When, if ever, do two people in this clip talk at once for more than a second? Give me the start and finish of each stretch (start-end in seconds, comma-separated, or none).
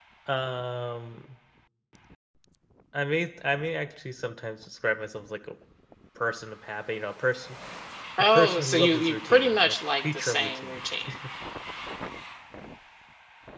8.3-10.8